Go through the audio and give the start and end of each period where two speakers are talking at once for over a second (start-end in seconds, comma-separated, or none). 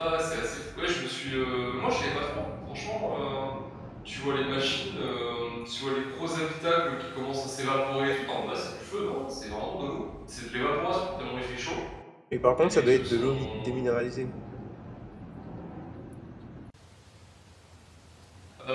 12.6-13.9